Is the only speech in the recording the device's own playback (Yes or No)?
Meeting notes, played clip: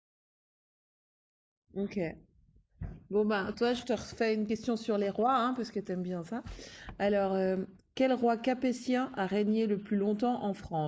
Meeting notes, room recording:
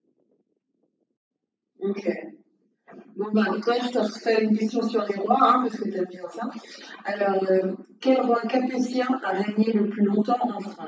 Yes